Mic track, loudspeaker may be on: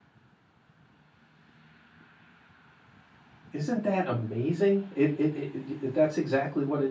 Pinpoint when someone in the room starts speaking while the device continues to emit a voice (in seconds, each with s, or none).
3.5 s